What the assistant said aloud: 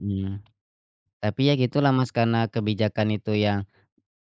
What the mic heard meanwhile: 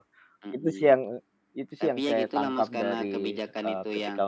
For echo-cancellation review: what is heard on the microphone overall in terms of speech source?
both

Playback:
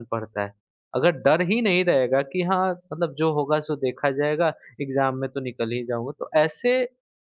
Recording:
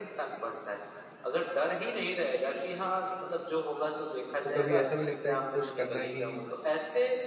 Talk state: both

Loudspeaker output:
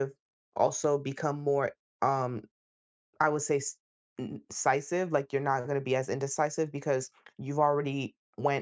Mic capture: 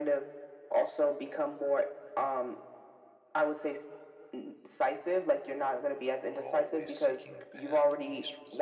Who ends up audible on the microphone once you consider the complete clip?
both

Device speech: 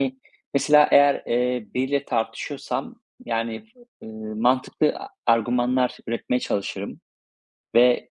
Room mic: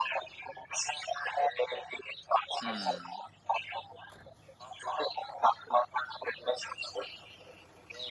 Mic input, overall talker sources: both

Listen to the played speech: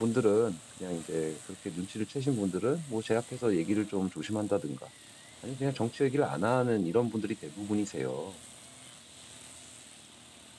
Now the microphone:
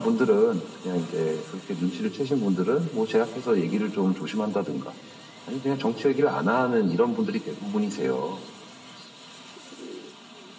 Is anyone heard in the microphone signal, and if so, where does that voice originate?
echo only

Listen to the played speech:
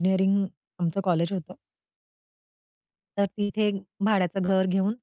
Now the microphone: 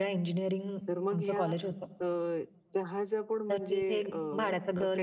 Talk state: both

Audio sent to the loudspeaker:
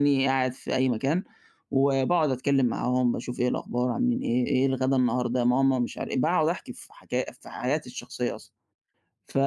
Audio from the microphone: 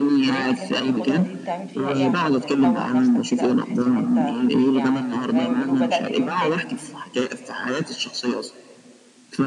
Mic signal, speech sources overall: both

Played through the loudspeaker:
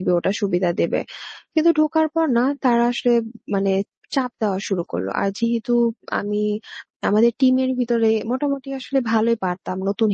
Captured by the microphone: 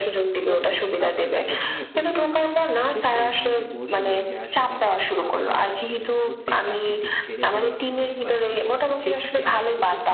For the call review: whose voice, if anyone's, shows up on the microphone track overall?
both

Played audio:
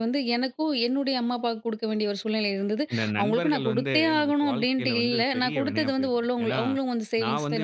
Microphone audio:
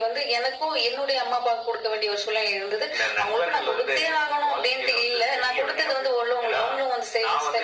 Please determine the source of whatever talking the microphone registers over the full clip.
echo only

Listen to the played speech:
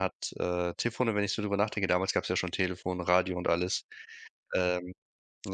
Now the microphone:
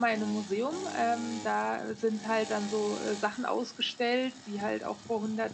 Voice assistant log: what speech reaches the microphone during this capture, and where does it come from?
user only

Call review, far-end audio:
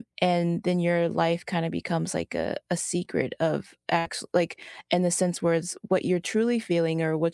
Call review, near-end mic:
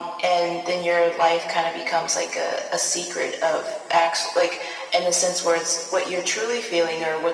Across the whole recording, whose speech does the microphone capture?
echo only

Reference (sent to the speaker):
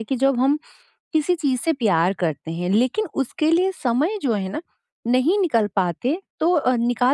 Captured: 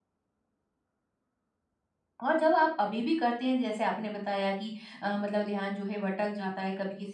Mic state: user only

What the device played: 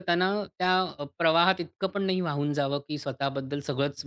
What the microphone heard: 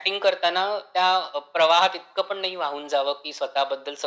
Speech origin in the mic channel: echo only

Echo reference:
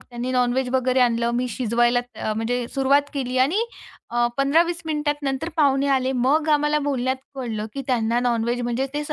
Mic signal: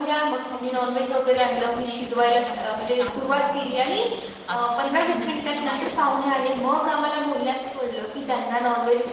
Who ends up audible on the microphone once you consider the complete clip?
both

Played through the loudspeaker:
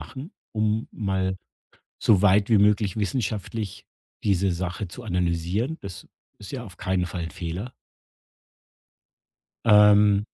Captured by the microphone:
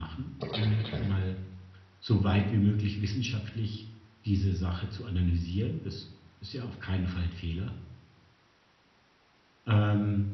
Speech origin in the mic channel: both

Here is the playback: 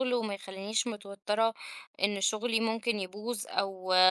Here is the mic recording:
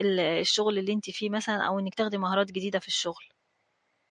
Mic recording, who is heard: user only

